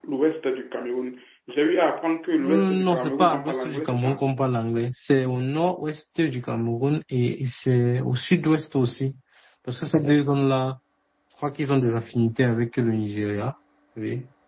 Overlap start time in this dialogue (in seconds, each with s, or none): 2.4 s